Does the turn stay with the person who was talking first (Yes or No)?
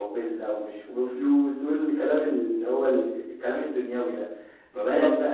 Yes